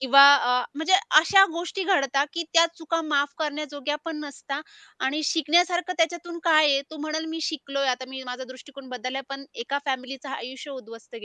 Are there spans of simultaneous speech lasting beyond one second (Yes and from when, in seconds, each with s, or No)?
No